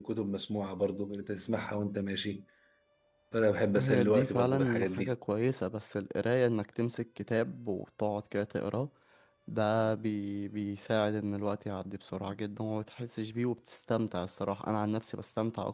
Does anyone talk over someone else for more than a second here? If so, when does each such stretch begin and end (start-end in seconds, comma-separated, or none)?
3.8-5.1